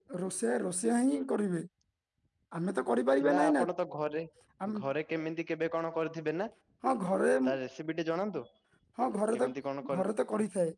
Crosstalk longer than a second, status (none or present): none